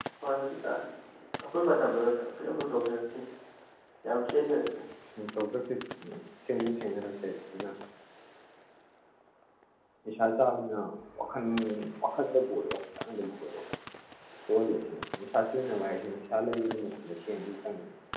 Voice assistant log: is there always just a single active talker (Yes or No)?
Yes